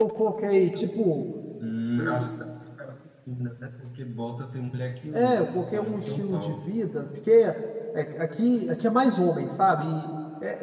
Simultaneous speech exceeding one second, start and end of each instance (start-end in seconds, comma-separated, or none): 5.1-6.6